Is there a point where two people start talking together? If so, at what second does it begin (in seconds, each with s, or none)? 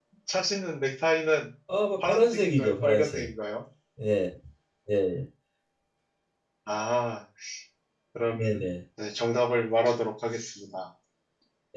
2.0 s